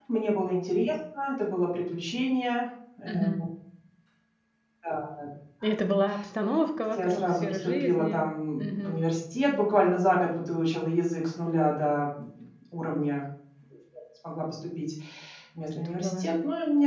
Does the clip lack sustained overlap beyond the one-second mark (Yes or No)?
No